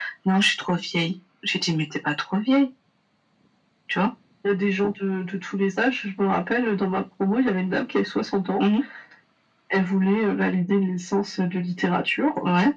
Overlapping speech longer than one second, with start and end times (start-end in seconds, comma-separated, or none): none